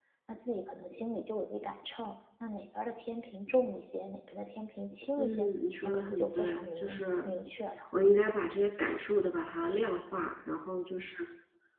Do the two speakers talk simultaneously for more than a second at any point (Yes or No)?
Yes